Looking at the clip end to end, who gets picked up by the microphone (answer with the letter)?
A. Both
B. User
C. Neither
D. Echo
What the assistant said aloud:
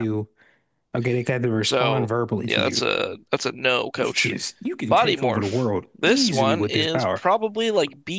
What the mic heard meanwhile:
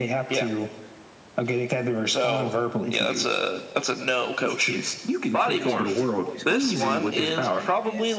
A